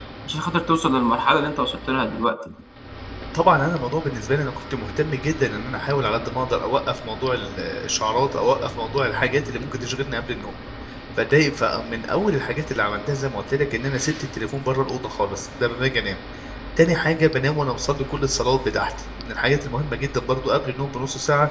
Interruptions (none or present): none